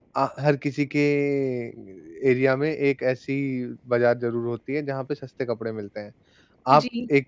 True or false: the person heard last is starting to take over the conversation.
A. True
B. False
B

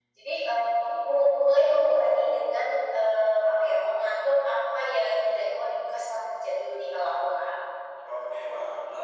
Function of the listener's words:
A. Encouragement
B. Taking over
B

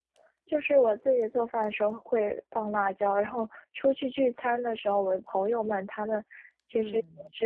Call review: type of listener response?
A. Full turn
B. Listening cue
B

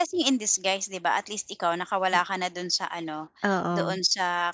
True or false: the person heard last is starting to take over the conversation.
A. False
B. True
A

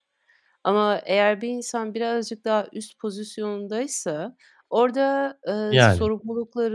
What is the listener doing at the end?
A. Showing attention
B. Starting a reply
A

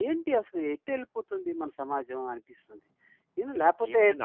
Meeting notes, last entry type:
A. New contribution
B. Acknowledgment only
A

